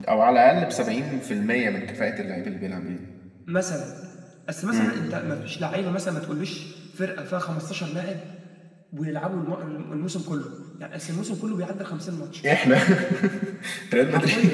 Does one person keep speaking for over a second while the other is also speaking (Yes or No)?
No